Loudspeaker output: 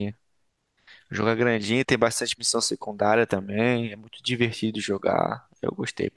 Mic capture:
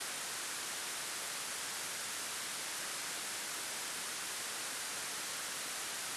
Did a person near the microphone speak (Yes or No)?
No